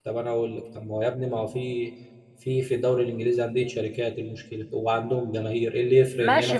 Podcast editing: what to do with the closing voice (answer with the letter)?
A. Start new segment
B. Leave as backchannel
A